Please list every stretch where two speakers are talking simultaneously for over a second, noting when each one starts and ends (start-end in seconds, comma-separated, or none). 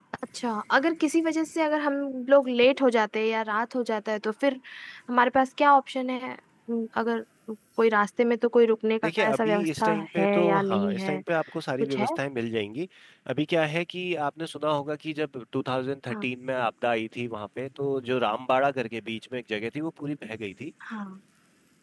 9.0-11.2